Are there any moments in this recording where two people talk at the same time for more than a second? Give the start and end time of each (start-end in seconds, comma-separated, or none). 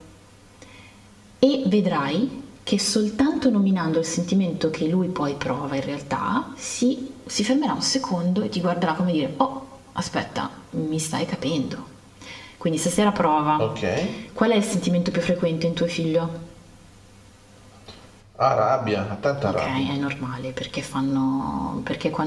none